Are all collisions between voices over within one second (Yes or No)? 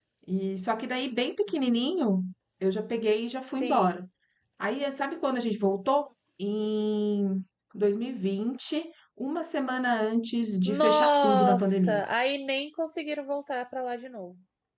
No